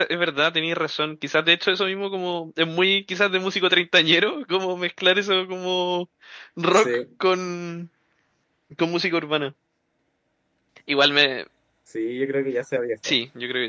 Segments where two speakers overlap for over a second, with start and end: none

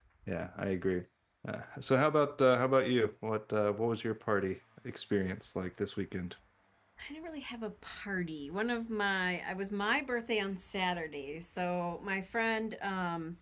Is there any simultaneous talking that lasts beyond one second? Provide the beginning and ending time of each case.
none

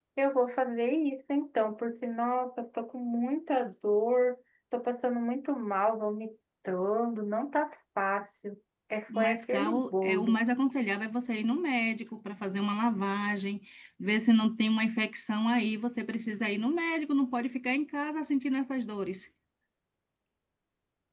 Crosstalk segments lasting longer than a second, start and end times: 9.2-10.4

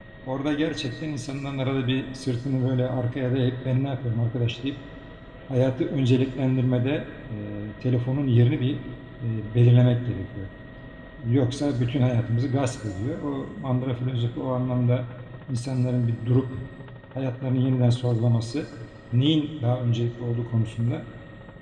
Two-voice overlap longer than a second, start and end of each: none

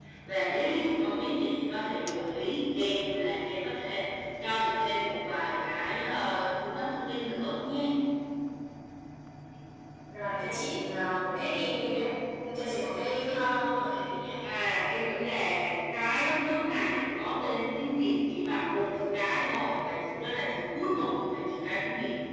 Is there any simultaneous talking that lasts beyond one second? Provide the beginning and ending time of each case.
none

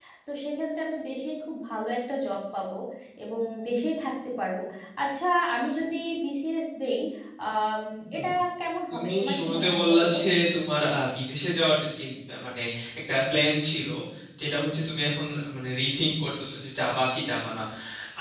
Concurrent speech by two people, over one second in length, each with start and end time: 8.9-10.2

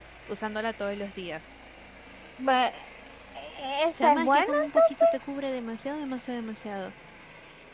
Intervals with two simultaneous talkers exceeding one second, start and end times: 4.0-5.2

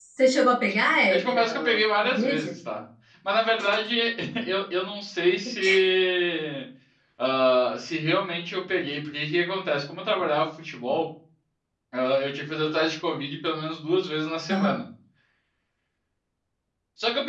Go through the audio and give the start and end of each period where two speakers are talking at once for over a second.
1.1-2.4

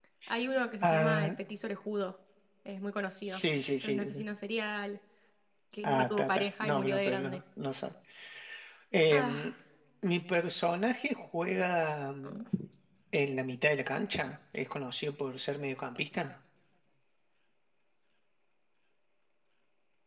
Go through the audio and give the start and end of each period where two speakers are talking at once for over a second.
5.8-7.4

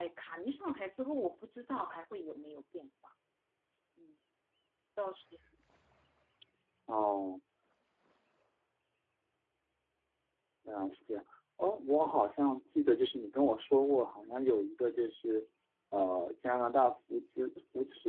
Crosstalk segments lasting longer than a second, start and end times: none

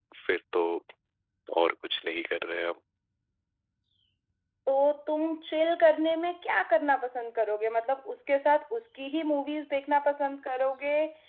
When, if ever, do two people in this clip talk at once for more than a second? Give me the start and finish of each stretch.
none

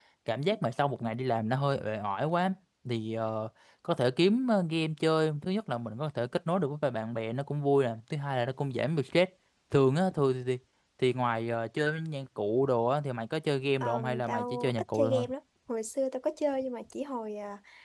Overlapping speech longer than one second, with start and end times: 13.8-15.2

